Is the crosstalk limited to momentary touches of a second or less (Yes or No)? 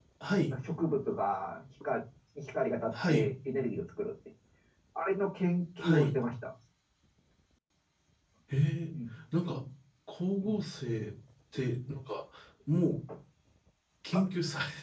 Yes